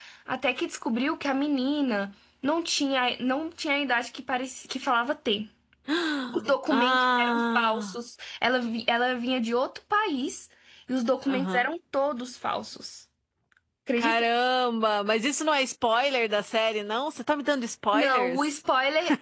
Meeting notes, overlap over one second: present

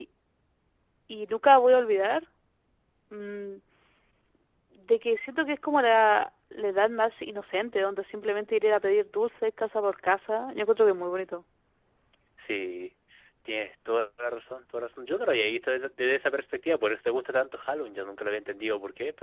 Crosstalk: none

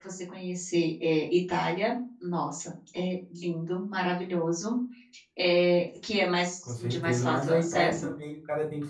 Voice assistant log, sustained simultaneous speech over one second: present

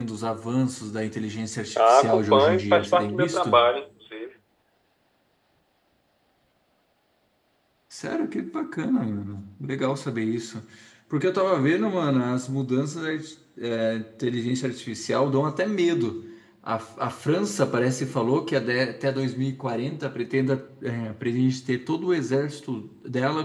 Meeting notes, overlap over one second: present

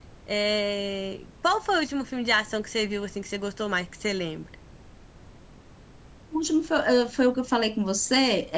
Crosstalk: none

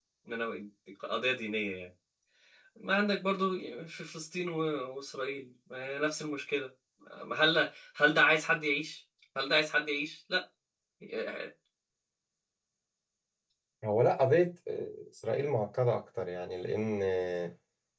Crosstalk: none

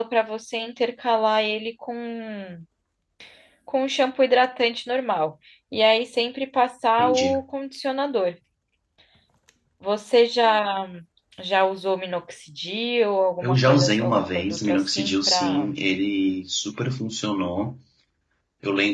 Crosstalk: present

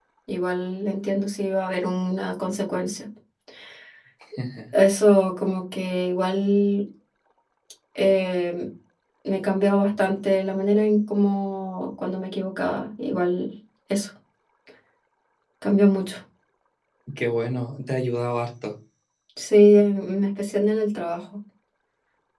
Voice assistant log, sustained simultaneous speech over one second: none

